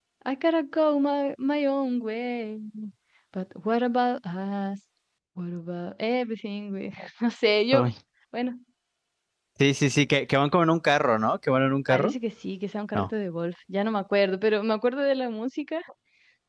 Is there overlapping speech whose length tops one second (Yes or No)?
No